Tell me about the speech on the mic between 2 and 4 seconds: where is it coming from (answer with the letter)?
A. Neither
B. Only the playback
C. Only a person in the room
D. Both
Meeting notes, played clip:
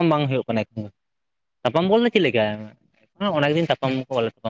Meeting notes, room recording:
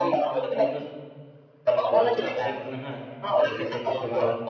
D